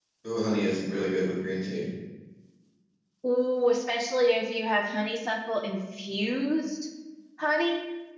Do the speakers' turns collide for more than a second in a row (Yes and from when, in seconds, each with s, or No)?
No